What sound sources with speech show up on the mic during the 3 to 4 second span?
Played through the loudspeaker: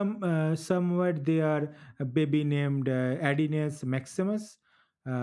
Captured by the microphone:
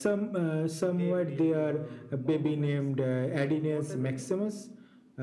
both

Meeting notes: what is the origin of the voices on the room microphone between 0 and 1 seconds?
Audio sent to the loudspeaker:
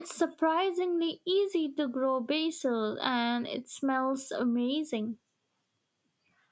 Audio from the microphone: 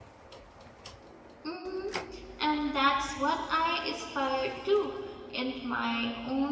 neither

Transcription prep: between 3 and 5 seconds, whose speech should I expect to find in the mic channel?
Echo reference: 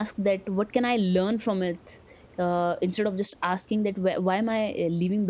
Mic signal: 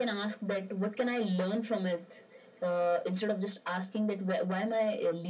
echo only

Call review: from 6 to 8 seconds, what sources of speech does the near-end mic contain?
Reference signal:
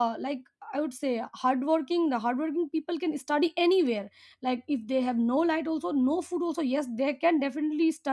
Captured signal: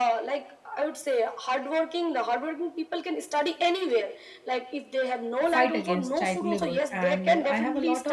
both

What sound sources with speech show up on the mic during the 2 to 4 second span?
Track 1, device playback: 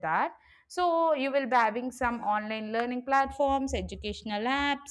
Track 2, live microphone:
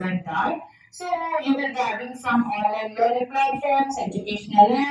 echo only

